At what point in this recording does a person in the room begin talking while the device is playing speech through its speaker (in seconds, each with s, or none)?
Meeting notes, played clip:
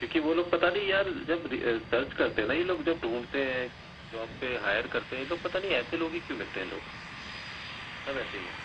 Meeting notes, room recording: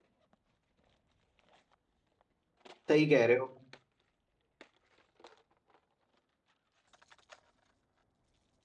2.9 s